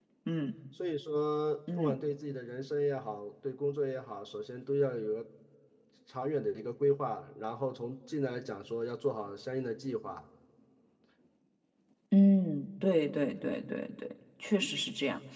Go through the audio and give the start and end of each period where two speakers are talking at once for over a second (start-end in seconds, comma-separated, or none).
none